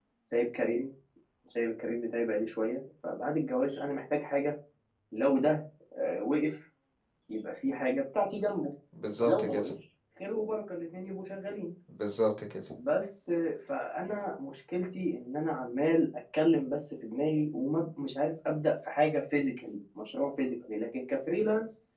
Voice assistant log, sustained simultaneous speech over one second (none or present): none